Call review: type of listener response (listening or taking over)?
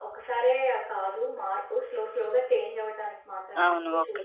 taking over